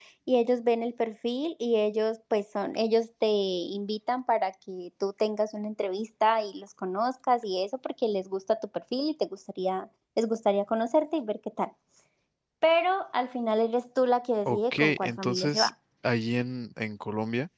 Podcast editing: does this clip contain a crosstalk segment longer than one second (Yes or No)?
Yes